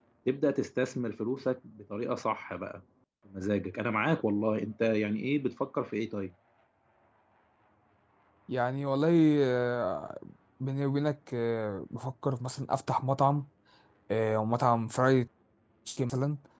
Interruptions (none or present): none